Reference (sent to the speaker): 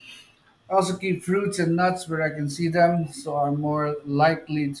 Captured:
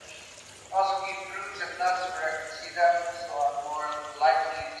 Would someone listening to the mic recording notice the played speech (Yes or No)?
Yes